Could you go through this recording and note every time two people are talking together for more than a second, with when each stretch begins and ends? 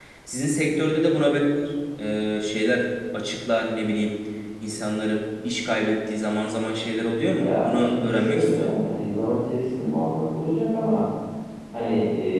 7.4-8.7

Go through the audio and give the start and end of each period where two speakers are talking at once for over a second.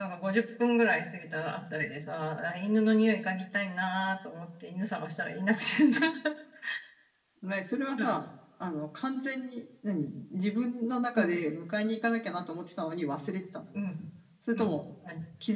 none

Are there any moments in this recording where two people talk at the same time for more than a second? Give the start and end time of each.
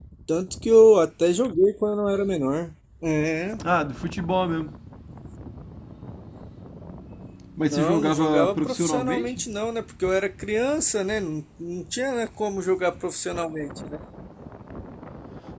7.7-9.4

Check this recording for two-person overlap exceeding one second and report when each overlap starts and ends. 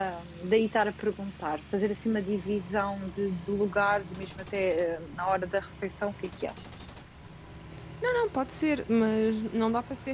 none

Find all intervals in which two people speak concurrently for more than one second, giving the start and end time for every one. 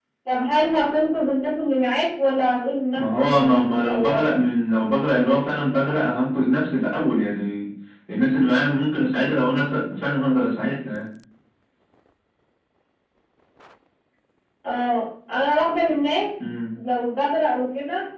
3.0-4.3

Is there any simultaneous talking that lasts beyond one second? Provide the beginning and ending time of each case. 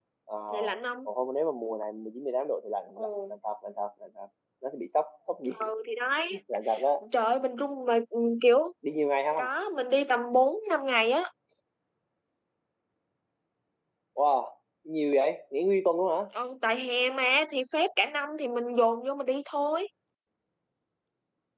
none

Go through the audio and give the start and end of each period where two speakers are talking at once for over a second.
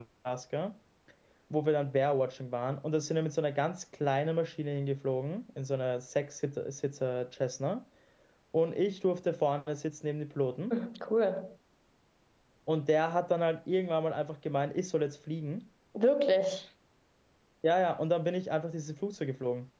none

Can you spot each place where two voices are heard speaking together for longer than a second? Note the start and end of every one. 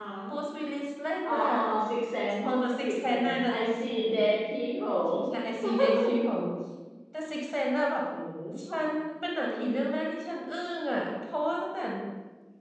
2.9-4.1

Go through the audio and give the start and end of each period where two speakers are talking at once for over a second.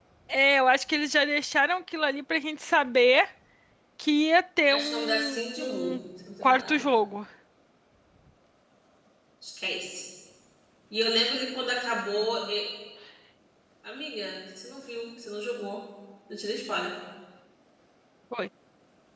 4.7-6.0

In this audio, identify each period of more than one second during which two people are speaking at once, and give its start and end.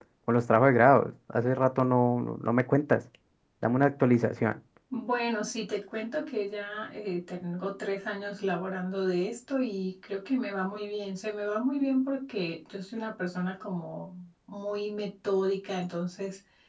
none

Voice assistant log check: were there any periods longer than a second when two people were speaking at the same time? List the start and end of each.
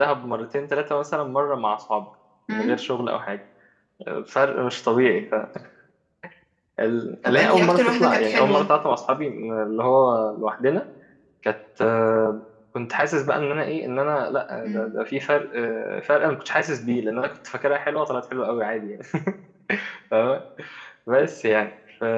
7.2-8.7

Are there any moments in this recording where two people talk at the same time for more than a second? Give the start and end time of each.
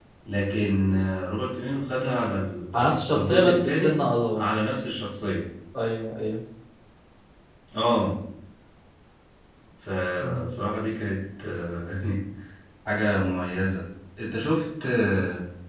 2.7-3.9

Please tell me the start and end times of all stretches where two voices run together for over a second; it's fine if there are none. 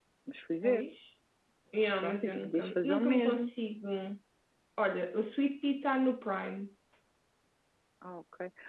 2.0-3.5

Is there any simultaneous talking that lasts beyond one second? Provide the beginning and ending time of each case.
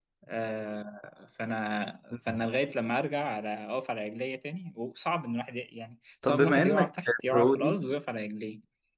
6.2-7.8

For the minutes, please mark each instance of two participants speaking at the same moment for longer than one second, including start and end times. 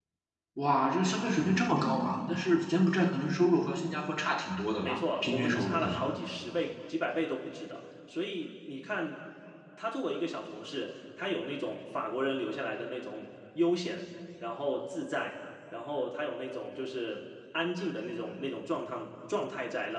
4.8-6.0

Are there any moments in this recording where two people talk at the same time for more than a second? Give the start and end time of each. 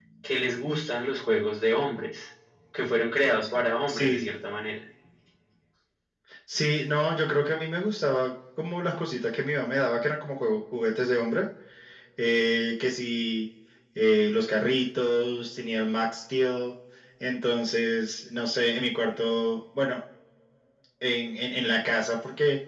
none

